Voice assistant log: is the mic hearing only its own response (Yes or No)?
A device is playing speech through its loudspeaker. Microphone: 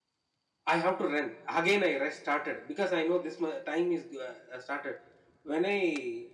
No